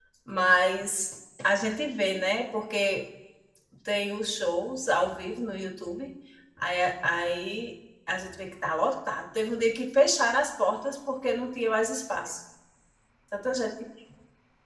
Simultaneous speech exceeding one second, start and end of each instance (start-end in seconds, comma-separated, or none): none